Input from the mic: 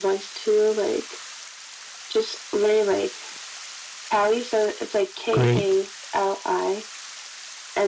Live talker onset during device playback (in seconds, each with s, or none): 5.3 s